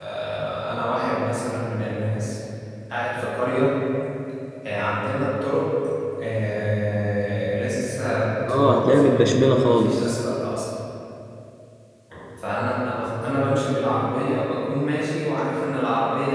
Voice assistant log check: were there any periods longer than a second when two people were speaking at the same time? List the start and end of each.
8.5-10.1

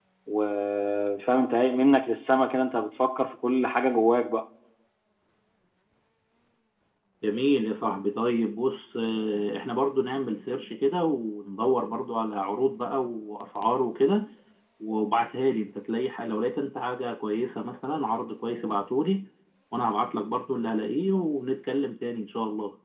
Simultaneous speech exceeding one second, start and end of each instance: none

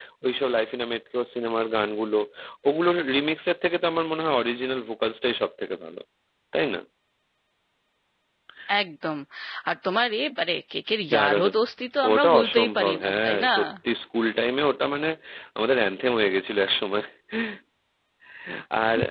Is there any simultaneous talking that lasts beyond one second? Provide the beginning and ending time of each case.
12.1-13.5

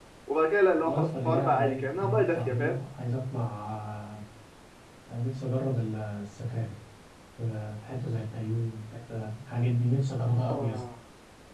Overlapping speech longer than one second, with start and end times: 0.8-2.8

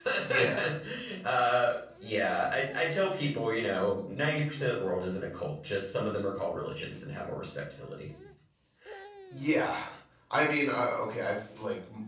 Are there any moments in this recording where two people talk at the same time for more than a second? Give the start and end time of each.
none

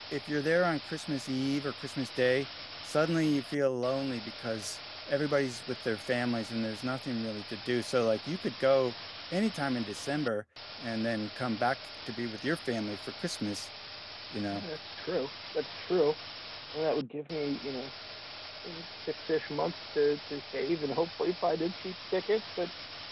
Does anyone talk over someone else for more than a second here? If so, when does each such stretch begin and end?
none

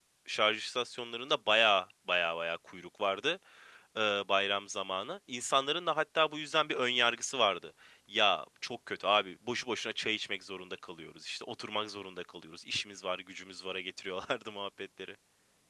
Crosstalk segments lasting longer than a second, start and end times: none

